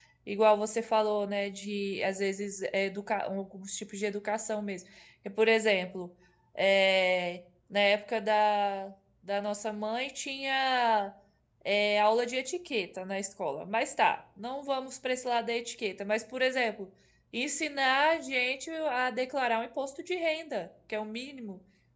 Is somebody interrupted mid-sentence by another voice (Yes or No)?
No